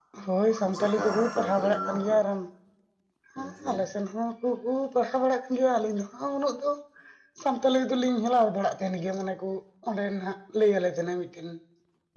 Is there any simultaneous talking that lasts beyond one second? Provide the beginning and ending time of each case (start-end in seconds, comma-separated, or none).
0.7-2.2